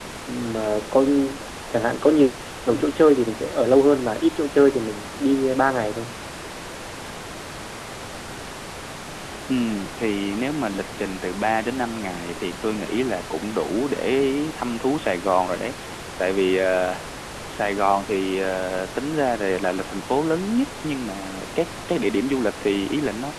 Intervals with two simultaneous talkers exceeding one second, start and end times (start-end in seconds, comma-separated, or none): none